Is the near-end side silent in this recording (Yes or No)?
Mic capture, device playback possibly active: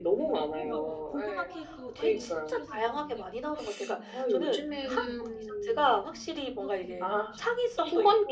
No